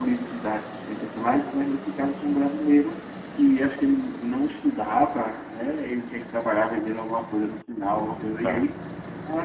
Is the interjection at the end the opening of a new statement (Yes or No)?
No